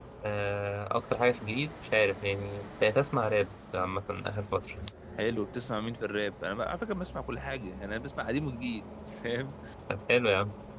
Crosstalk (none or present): none